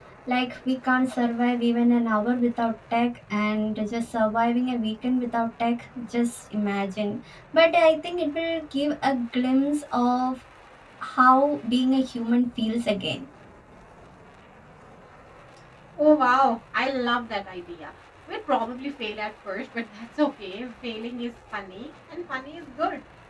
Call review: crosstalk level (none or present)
none